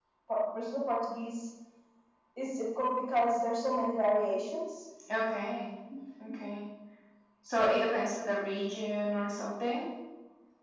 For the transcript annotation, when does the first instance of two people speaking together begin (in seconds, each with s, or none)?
none